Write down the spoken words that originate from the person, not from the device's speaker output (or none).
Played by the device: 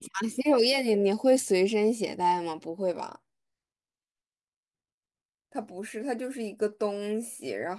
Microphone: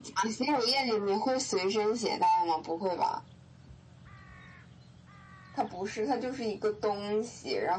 none